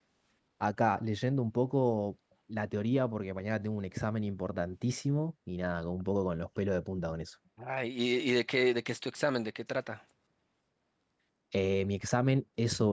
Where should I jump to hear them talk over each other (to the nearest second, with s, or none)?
none